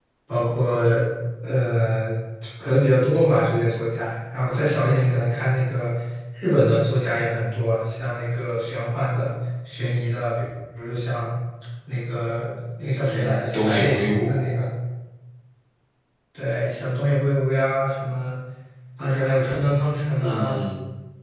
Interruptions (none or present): present